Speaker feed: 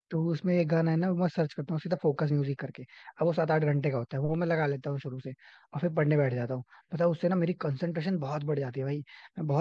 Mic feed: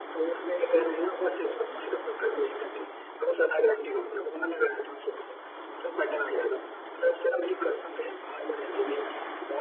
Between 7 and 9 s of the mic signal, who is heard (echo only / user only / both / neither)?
echo only